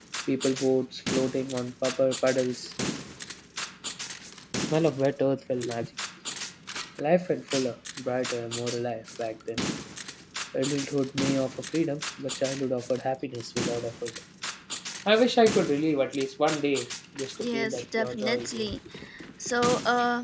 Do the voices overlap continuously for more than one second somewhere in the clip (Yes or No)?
Yes